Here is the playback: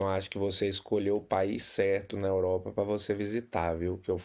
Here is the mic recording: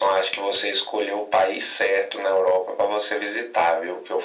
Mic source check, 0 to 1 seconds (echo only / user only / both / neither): echo only